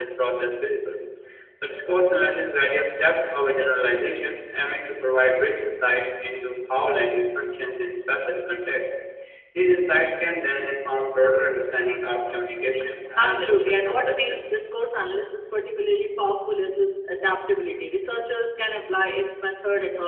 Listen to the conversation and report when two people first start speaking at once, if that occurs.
13.2 s

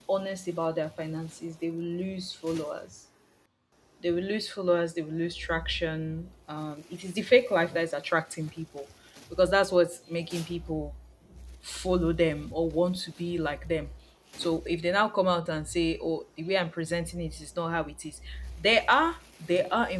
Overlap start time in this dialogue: none

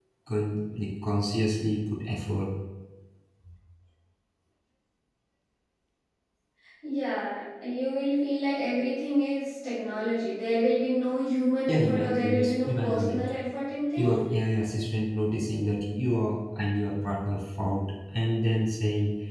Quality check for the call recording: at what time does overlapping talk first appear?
11.7 s

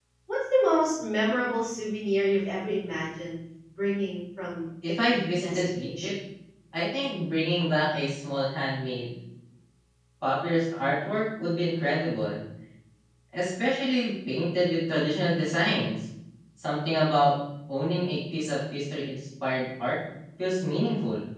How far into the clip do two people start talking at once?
4.8 s

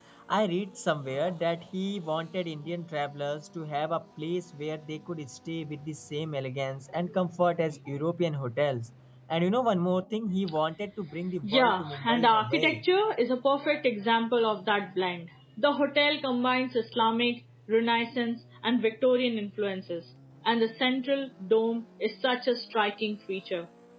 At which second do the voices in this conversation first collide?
11.4 s

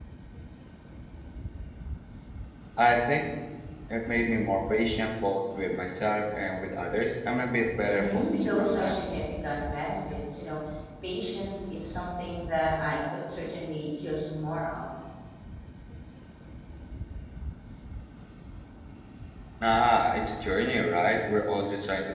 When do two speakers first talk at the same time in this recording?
7.9 s

